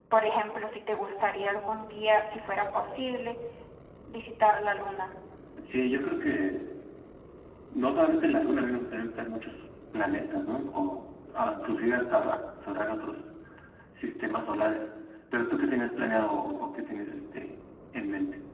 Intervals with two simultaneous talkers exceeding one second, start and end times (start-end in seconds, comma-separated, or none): none